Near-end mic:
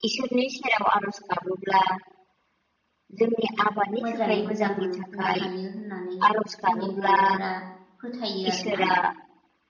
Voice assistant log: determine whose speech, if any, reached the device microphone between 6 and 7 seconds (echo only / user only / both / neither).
both